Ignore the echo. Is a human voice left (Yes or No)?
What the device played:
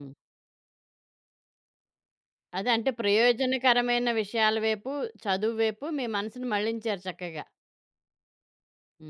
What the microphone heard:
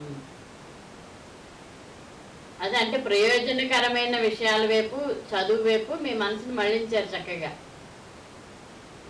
No